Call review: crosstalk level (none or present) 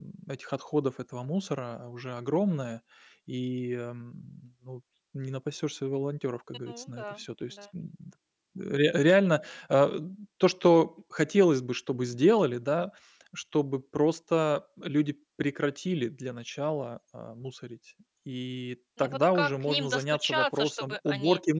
present